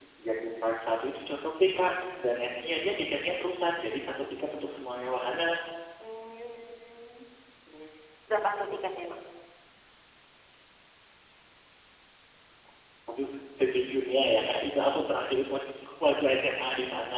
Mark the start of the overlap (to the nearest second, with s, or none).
none